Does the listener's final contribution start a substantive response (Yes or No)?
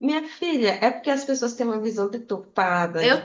No